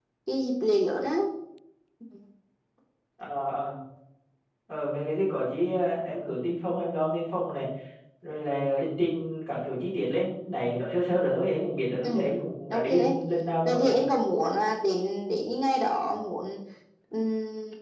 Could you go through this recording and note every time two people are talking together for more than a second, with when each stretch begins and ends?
none

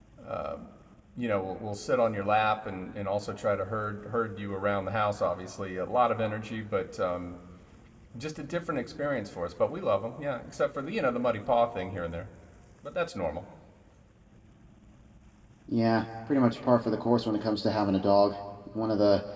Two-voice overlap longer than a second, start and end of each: none

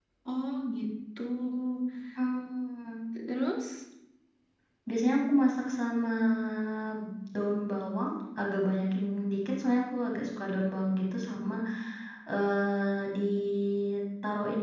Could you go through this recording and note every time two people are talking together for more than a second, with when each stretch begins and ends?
none

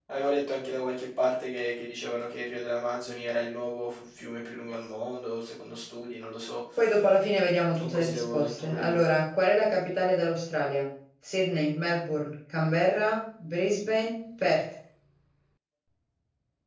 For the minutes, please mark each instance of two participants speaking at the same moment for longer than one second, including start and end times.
7.8-9.0

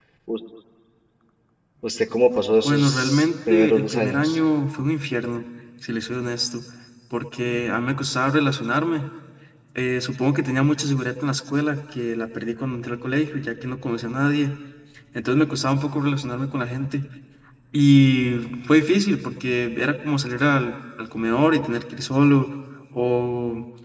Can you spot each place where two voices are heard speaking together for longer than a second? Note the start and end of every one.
2.6-4.4

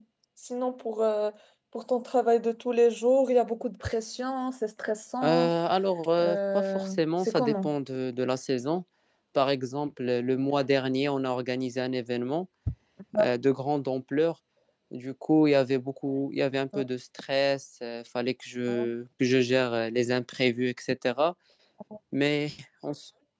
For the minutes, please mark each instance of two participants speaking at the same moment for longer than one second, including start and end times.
6.2-7.7

